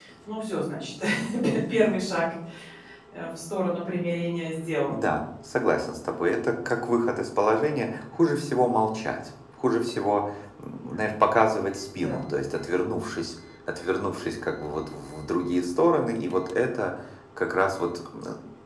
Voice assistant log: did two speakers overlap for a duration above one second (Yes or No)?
No